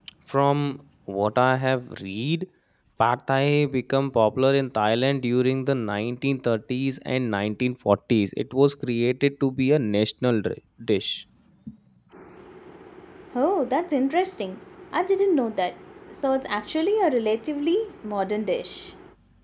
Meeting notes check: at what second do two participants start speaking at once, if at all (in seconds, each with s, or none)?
none